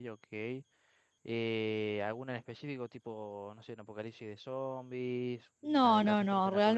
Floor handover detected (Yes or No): Yes